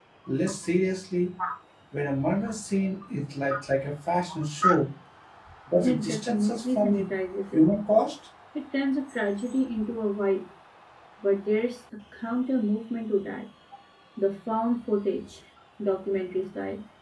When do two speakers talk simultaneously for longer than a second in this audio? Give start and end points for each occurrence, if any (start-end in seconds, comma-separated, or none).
5.8-7.0